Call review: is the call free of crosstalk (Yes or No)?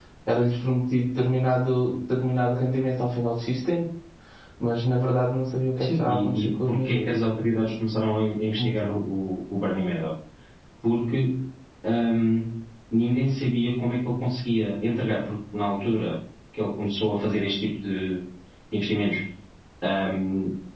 No